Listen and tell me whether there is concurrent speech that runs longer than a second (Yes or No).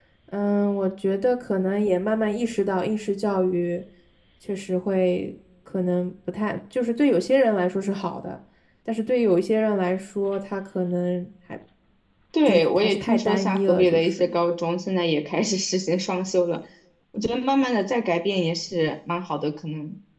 Yes